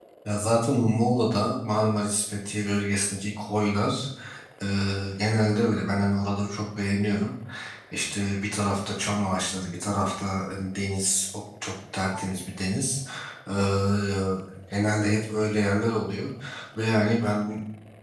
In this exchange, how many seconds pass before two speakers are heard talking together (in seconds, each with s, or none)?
none